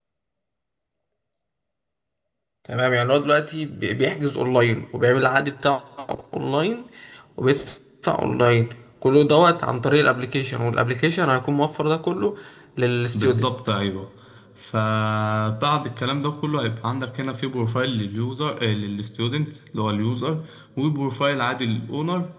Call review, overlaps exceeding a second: none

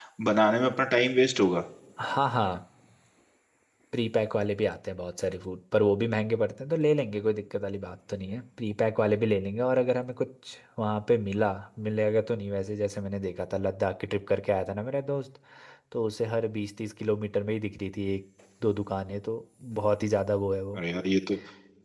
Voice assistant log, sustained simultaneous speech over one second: none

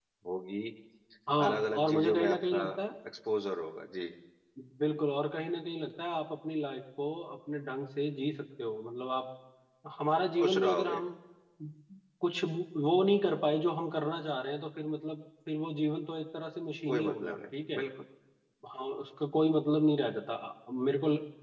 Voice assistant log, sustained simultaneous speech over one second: present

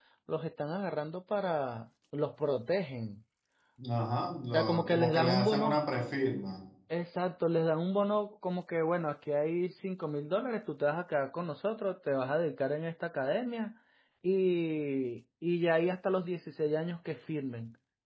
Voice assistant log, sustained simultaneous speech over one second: present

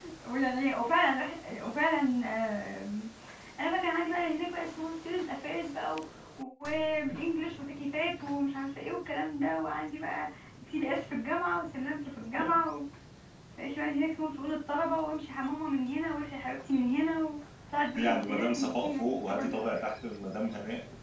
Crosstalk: present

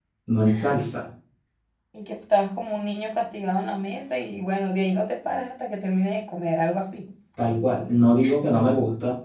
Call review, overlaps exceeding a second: none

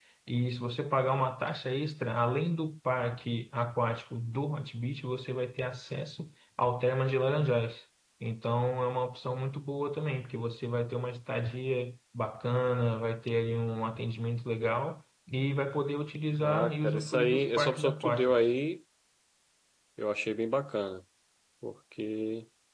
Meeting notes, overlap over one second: present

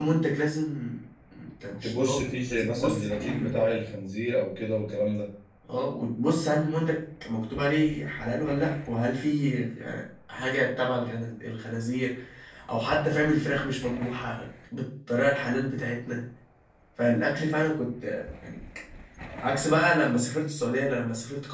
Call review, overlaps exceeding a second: present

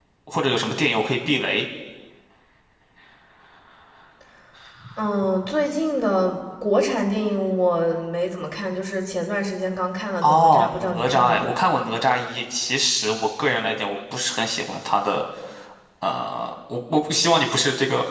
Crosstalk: present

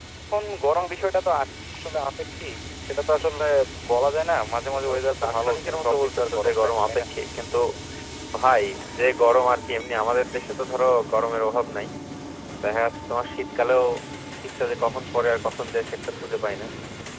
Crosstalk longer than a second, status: present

